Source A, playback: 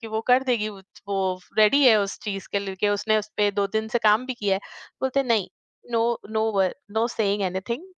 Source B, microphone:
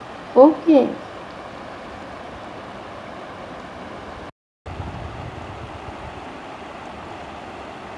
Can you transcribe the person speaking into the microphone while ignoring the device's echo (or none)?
ओके।